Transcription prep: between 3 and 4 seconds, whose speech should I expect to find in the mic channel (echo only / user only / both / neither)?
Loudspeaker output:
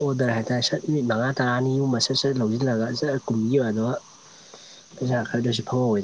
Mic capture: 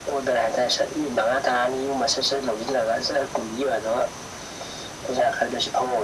echo only